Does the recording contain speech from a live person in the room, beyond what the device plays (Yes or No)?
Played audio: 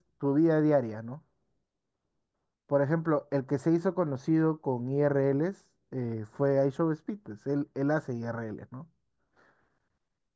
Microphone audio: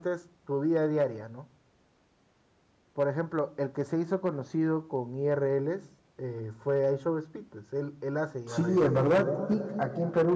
Yes